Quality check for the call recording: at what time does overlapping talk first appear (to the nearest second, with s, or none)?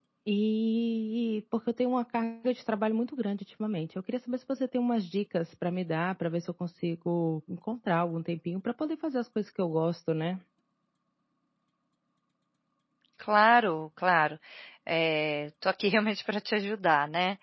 none